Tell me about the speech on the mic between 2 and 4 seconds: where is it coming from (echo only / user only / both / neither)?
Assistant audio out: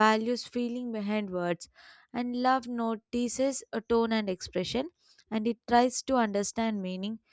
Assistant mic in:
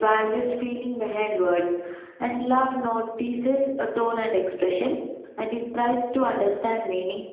echo only